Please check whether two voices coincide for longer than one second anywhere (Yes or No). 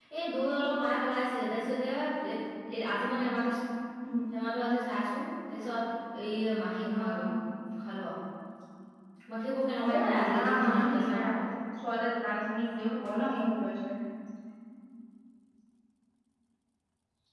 Yes